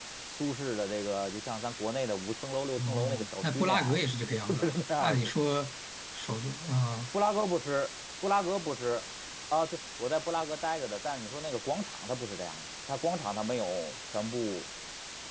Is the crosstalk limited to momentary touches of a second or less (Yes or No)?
No